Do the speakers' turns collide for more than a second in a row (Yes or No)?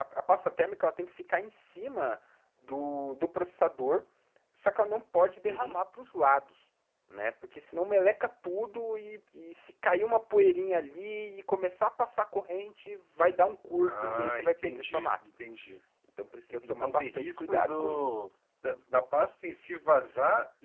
Yes